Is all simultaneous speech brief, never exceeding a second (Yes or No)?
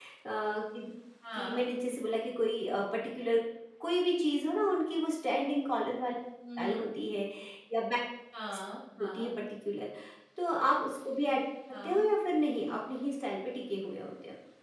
Yes